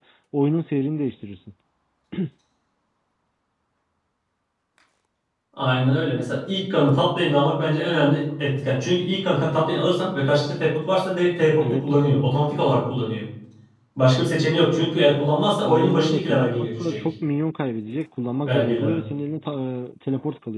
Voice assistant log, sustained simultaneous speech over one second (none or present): present